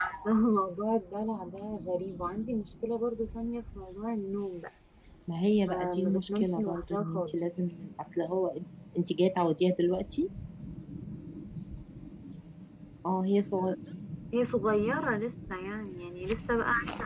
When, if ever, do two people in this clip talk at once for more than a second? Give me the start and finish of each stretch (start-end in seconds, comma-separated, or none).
5.6-7.4